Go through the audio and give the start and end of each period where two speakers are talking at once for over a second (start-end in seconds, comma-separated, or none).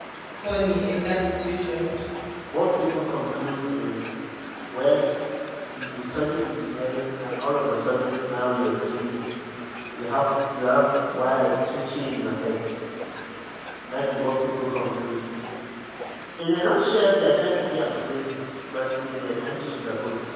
none